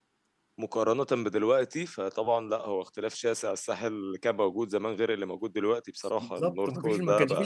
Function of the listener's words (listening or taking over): taking over